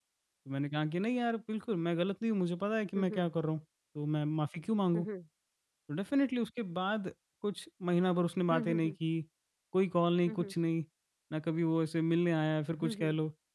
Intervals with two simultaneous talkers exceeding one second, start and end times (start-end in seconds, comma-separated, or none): none